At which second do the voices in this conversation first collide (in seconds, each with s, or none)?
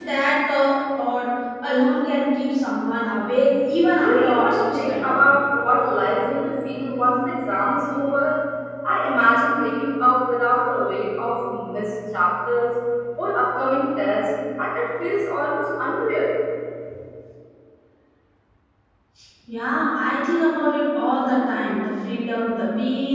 4.0 s